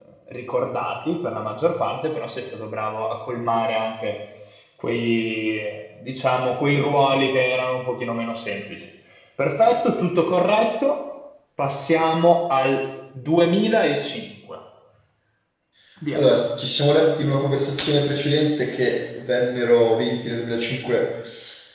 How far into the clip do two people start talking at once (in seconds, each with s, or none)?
none